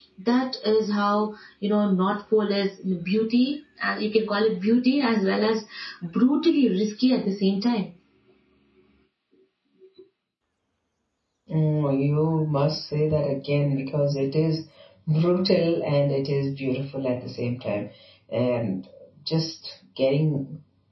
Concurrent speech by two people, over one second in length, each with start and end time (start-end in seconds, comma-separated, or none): none